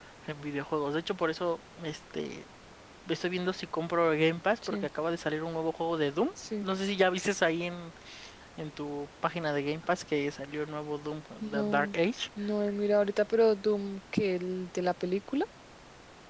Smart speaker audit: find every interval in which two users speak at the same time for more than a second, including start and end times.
none

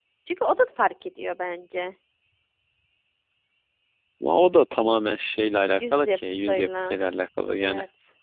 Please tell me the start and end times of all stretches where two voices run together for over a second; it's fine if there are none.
5.8-7.0

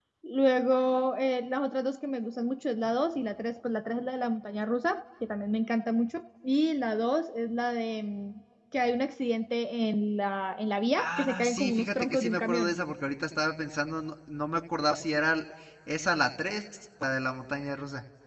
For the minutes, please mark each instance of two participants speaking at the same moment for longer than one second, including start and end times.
11.0-12.7

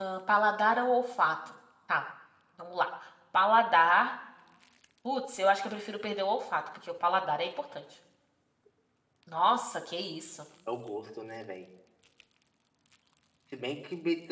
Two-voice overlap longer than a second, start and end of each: none

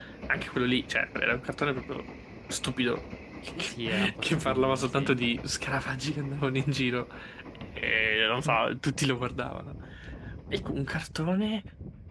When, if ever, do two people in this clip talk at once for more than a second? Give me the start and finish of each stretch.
3.6-5.2

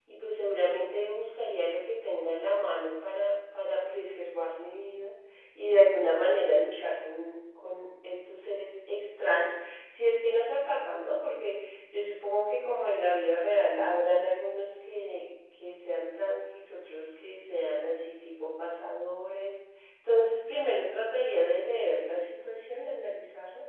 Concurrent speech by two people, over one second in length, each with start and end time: none

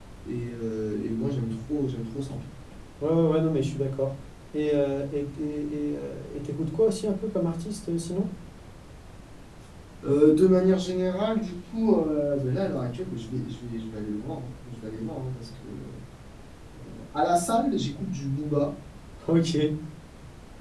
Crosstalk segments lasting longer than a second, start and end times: none

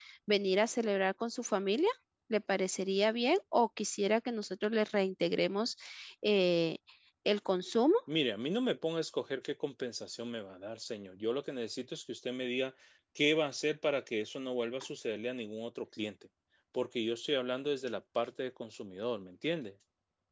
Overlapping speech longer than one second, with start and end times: none

